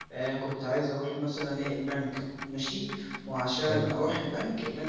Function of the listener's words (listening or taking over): listening